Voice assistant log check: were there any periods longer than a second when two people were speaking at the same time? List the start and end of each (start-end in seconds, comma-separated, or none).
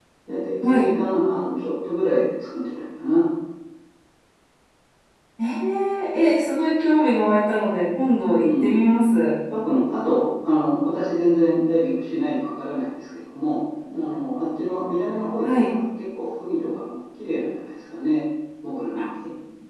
none